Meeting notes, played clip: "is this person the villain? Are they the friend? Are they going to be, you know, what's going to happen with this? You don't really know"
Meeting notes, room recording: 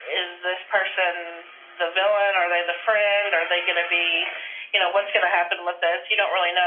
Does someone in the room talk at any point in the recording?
No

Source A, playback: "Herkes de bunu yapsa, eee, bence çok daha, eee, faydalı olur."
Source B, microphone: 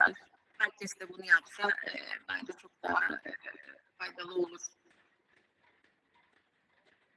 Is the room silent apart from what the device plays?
Yes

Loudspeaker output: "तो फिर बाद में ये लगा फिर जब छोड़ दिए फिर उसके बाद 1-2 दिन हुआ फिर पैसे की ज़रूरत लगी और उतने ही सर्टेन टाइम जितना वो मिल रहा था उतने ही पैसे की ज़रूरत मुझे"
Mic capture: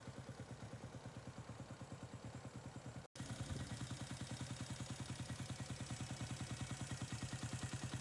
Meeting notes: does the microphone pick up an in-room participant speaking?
No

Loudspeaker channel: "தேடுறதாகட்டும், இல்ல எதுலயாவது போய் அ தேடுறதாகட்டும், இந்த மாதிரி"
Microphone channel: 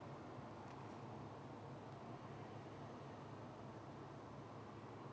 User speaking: No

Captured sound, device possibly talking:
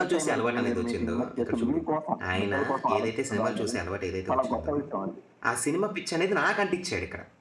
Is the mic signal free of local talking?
No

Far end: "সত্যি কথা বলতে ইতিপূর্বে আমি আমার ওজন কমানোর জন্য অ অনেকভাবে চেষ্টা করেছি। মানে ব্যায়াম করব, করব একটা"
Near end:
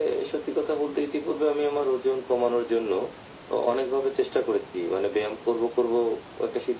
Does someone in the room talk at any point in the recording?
No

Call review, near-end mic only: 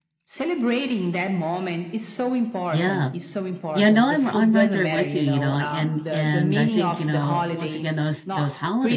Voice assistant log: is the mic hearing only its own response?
No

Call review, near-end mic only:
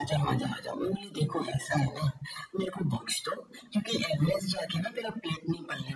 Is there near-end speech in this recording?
No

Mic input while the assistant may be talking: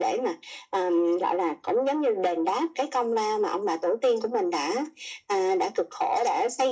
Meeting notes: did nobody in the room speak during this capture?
Yes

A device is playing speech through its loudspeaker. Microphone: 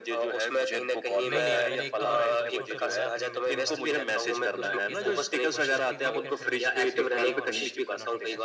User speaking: Yes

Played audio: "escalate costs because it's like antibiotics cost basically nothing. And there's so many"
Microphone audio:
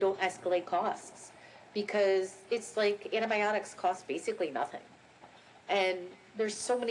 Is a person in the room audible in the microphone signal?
No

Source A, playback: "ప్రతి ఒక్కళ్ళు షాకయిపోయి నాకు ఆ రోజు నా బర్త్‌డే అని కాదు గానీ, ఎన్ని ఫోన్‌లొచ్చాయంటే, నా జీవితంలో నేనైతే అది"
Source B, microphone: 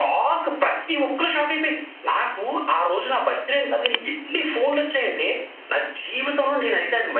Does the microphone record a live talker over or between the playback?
No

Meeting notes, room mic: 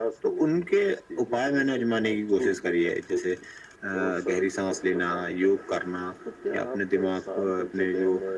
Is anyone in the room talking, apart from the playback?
No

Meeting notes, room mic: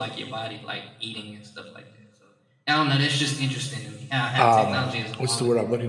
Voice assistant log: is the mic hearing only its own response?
No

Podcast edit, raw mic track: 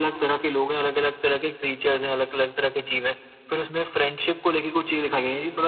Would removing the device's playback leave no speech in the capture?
Yes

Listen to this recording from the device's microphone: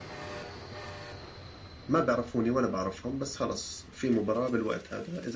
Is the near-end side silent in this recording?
No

